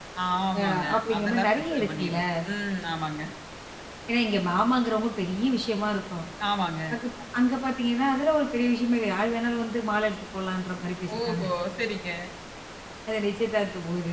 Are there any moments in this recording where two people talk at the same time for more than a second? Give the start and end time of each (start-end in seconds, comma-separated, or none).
0.6-2.2